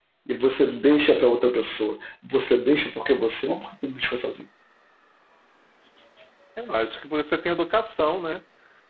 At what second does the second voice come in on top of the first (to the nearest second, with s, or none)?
none